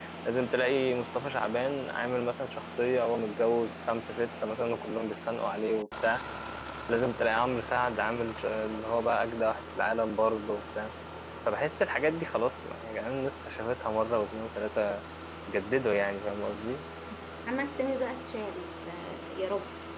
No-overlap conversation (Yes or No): Yes